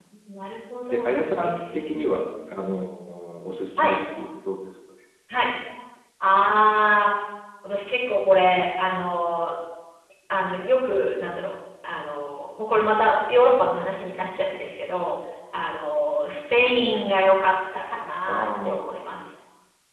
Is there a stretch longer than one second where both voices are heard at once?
Yes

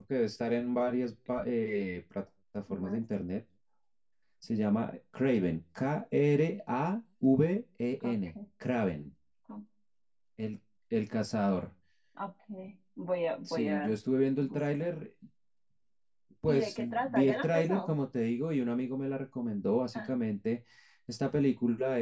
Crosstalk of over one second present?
Yes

